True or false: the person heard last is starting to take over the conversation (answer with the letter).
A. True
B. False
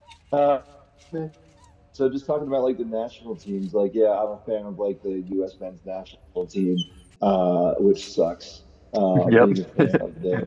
B